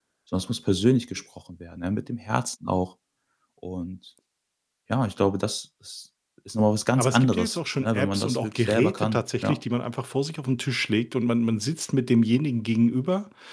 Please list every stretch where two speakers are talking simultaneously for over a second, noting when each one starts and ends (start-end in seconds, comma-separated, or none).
7.0-9.6